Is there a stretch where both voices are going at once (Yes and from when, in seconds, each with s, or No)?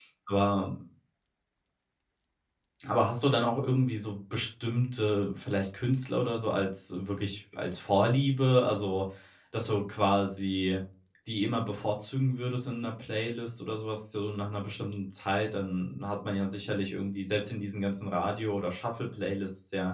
No